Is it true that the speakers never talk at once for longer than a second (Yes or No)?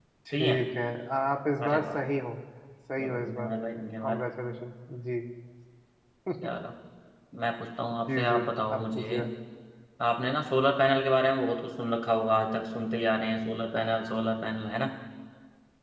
Yes